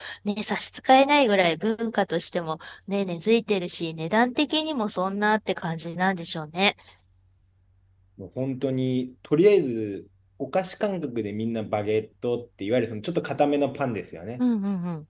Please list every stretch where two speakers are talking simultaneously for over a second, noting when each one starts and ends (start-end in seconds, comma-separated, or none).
none